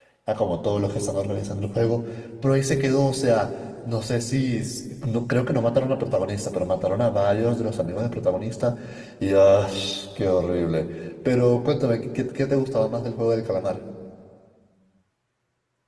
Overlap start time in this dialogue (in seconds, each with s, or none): none